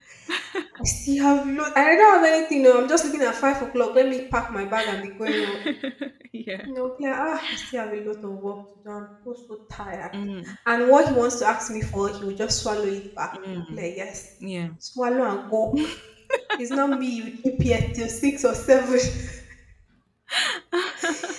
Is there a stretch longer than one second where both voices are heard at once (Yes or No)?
No